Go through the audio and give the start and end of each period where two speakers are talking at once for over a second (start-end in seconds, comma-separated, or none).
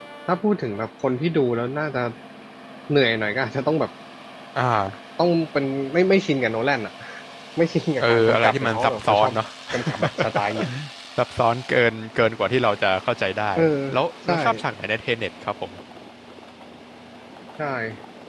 8.0-9.3